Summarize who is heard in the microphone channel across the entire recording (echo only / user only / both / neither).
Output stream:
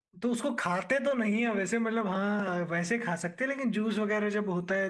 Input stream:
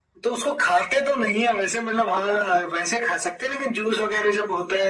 echo only